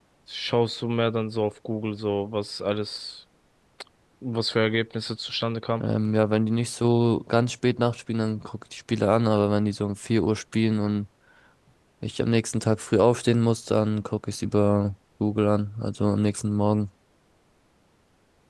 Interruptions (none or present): none